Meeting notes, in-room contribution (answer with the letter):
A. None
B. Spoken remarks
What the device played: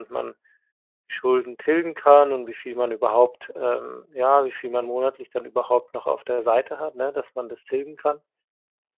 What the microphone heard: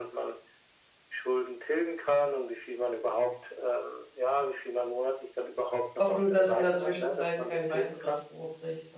B